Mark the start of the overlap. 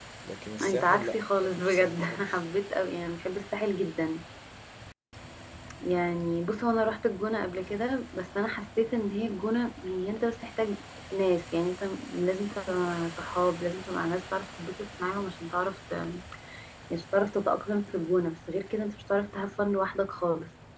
0.6 s

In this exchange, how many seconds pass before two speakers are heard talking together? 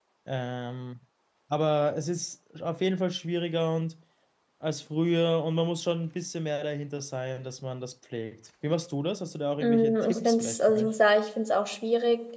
9.6 s

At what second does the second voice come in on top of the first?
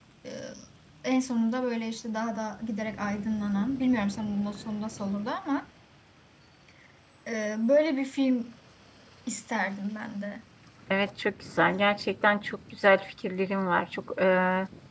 none

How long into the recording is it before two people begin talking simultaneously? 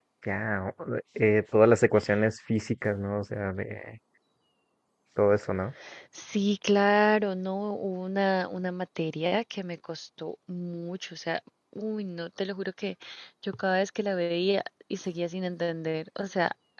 none

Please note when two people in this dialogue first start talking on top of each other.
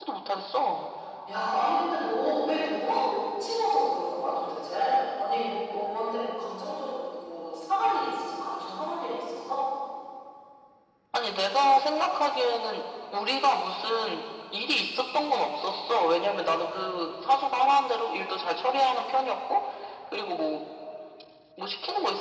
none

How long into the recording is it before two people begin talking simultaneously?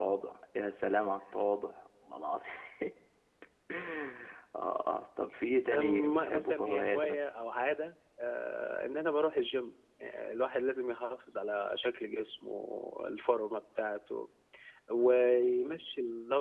5.7 s

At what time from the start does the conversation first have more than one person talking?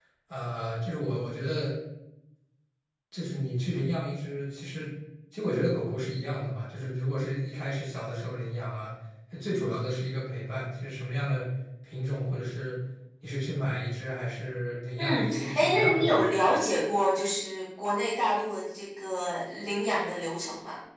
15.0 s

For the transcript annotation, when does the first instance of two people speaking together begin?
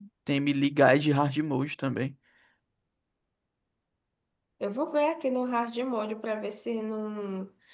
none

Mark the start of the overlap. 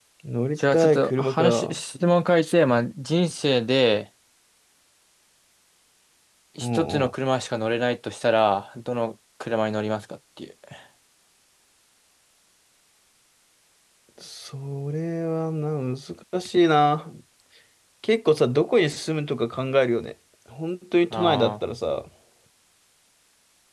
0.6 s

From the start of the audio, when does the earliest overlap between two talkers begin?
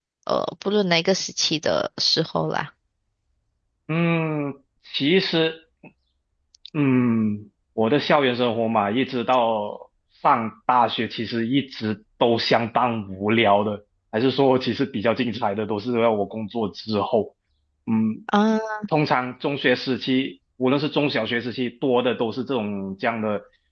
none

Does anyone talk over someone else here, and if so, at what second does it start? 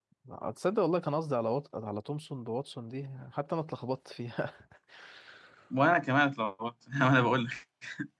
none

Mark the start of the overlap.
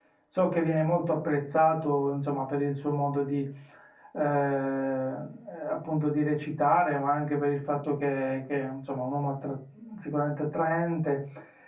none

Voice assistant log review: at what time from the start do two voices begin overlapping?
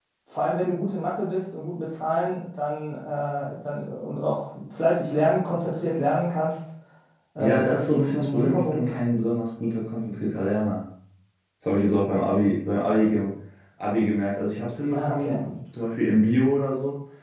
7.4 s

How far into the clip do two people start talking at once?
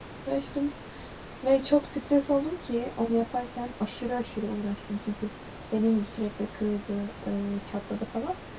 none

